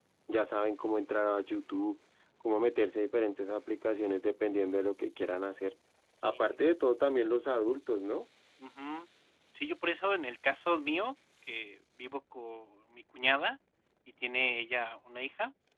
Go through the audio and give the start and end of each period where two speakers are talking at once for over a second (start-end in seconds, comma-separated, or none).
none